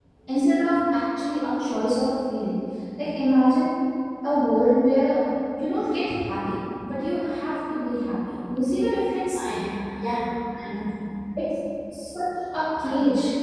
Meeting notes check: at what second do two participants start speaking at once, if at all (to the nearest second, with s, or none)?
none